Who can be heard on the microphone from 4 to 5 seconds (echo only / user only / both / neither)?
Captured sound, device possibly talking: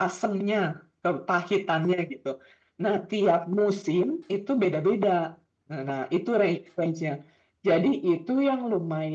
echo only